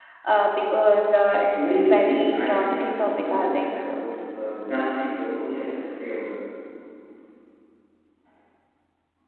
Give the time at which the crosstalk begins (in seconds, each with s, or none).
1.4 s